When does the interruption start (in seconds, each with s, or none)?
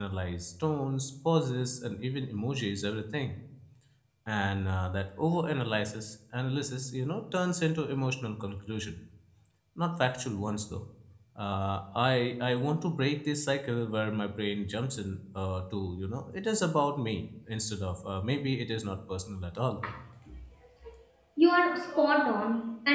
none